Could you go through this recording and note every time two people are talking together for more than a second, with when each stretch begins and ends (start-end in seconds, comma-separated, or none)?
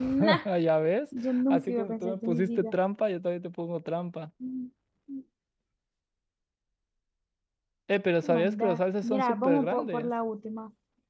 1.2-2.8, 8.2-10.1